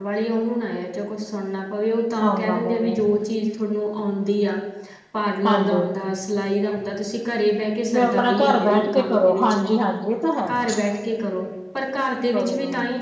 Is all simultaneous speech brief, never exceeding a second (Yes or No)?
No